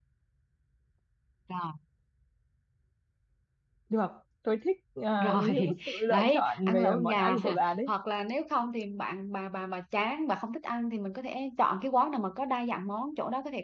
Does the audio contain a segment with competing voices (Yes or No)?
Yes